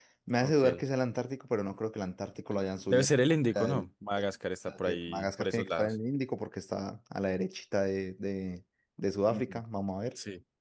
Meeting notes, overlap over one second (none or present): present